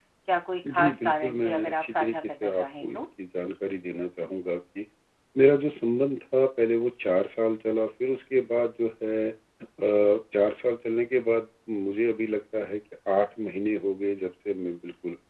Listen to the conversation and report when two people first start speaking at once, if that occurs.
0.7 s

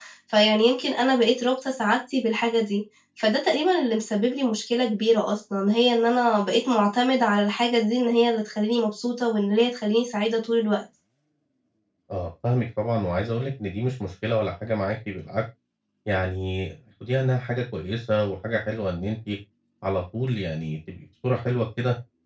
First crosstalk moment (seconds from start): none

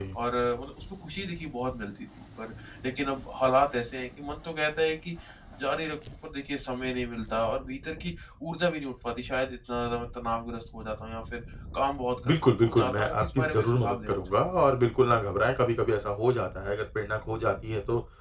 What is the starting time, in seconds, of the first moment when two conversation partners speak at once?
12.2 s

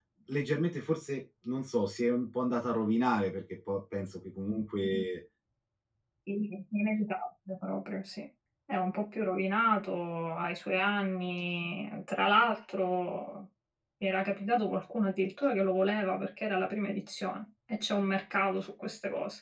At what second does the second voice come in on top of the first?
none

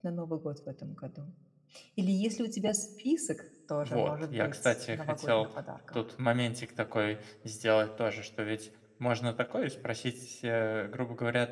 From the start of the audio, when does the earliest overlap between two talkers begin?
3.8 s

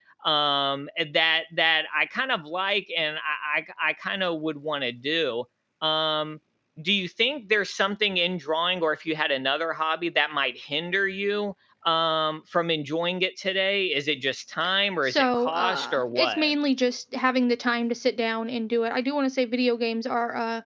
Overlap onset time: 15.0 s

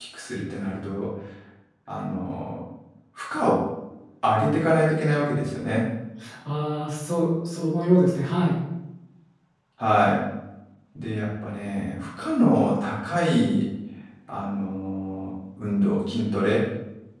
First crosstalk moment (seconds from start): none

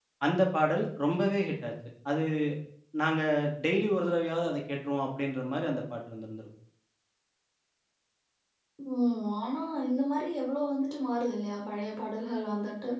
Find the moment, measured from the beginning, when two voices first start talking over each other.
none

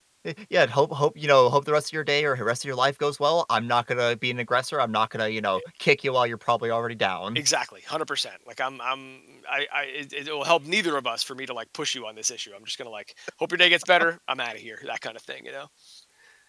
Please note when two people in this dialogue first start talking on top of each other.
none

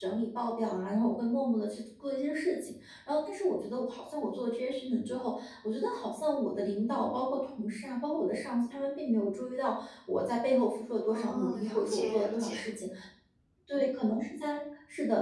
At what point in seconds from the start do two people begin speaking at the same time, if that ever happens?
11.1 s

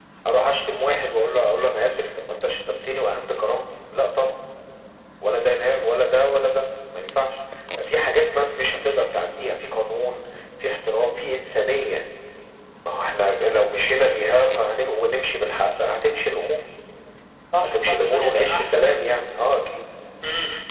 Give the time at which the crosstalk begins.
17.6 s

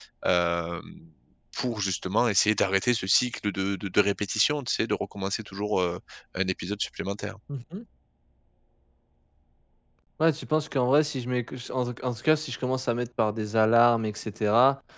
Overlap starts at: none

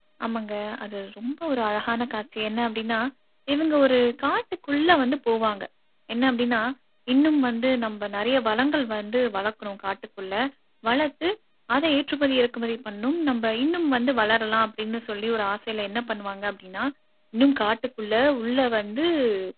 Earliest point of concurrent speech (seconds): none

